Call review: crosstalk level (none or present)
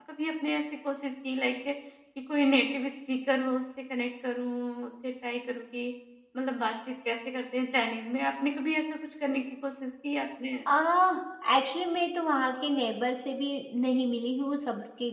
none